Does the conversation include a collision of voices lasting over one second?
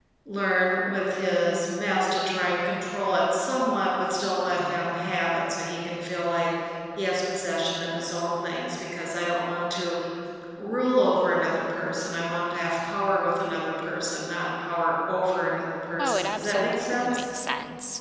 Yes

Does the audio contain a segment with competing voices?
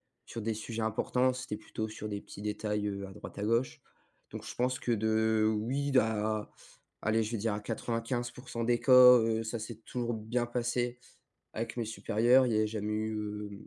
No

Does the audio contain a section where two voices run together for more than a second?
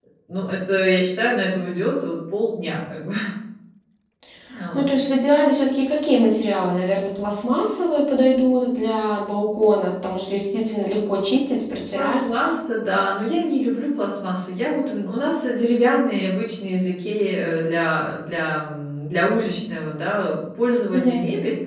No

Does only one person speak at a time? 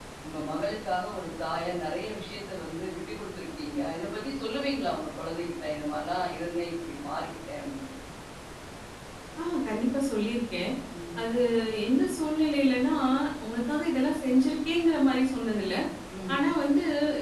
Yes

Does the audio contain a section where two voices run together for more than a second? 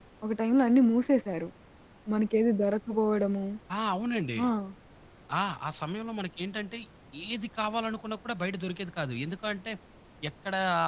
No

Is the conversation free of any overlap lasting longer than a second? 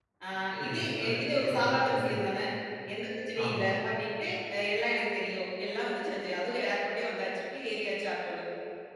No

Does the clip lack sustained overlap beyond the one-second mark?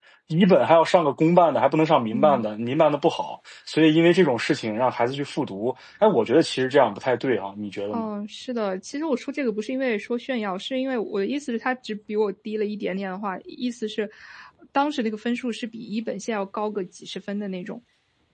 Yes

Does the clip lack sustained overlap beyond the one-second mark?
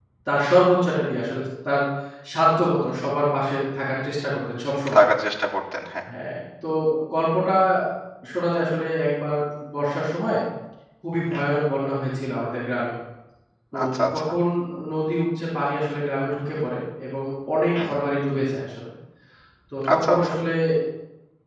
Yes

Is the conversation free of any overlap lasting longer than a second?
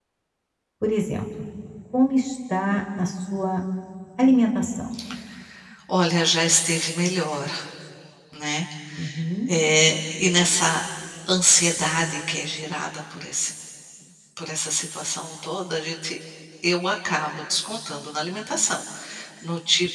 Yes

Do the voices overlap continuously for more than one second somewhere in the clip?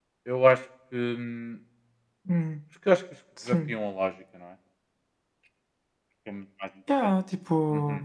No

